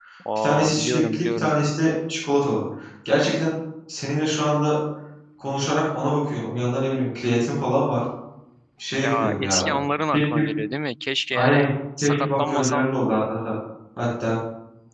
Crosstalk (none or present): present